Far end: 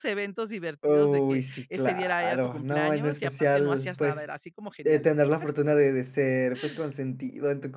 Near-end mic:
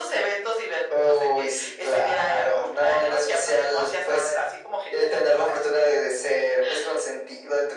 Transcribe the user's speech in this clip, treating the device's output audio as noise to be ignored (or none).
none